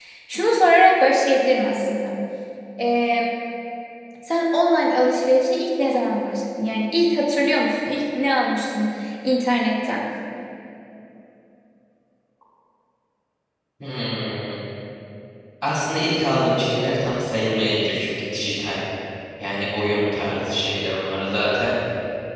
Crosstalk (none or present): none